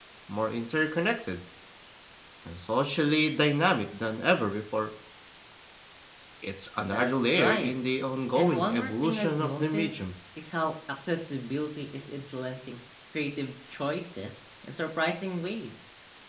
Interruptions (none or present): present